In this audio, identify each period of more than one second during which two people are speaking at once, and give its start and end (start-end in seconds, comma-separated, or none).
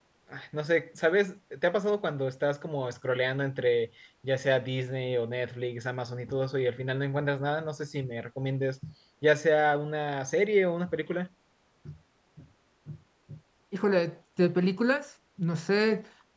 none